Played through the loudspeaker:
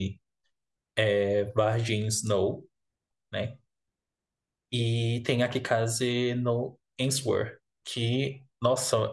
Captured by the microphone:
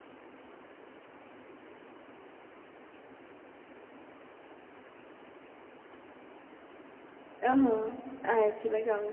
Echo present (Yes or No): No